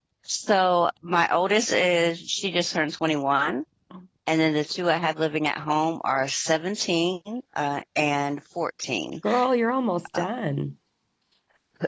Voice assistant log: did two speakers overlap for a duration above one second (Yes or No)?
No